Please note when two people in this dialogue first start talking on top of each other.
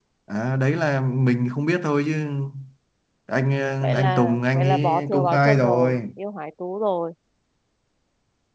4 s

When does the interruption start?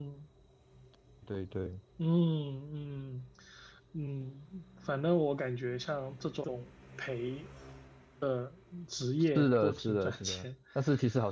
9 s

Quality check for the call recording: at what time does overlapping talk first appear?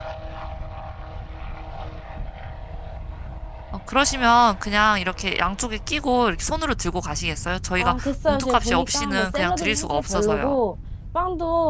8 s

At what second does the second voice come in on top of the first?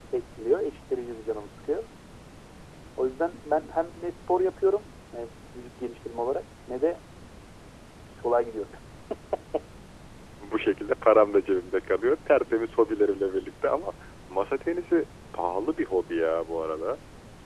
none

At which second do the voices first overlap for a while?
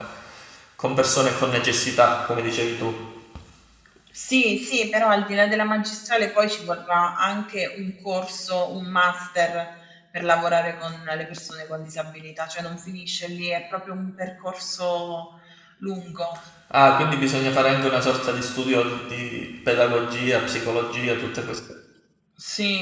none

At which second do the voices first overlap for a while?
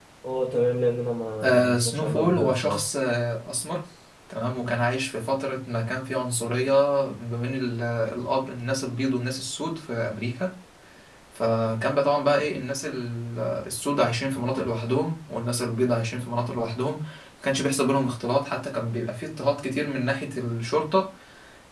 1 s

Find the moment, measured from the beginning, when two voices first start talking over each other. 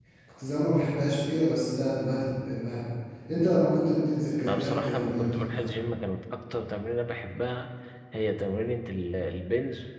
4 s

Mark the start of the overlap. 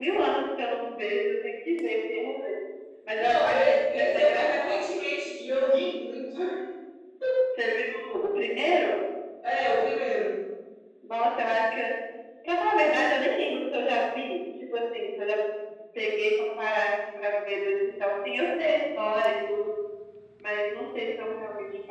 3 s

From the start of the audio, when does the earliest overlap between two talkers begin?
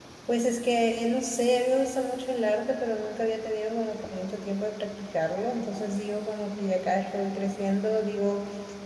none

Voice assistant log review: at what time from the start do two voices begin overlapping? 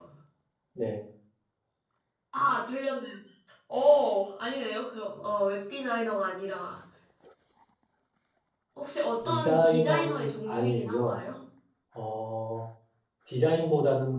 9 s

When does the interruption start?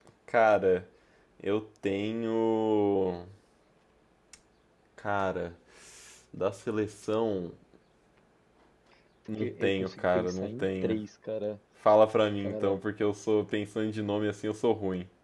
9 s

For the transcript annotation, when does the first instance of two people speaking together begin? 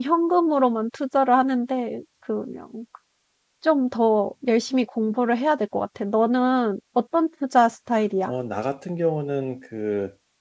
none

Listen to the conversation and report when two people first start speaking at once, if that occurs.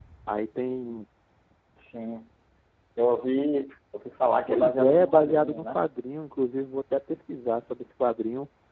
4 s

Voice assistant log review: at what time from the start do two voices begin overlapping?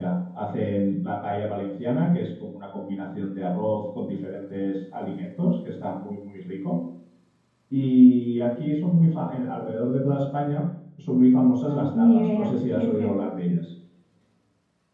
12 s

